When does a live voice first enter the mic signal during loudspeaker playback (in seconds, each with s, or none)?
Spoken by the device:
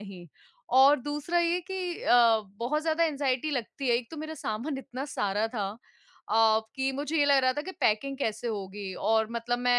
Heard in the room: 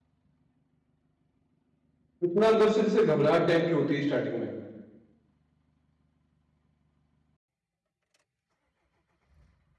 2.2 s